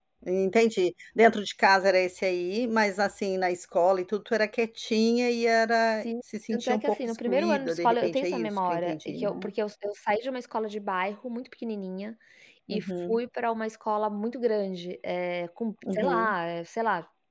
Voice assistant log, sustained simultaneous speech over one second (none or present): present